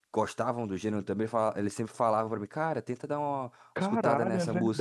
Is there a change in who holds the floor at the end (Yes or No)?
Yes